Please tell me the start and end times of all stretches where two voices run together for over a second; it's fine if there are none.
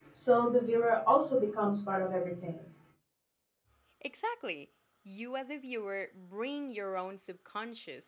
none

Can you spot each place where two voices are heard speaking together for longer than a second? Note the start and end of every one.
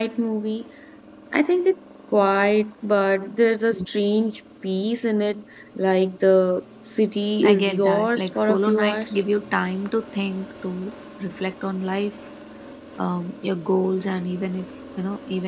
7.4-9.2

